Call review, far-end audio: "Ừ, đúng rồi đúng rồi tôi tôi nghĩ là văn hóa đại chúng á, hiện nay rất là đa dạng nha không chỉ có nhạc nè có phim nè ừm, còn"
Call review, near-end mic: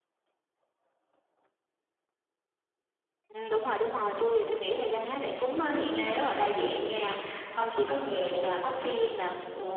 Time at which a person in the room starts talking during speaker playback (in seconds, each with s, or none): none